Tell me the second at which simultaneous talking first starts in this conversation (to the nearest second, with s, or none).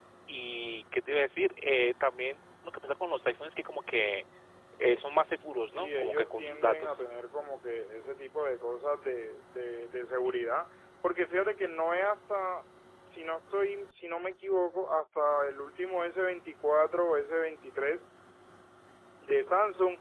6 s